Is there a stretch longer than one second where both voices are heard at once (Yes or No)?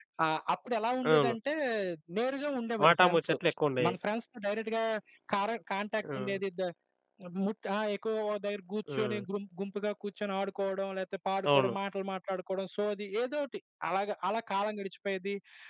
No